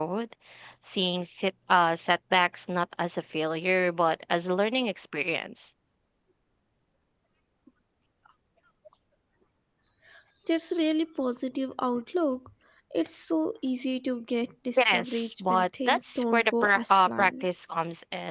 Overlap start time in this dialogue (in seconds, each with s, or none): 14.8 s